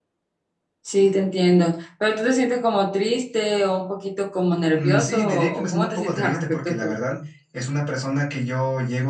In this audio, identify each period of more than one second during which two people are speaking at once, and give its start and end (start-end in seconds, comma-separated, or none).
4.7-6.9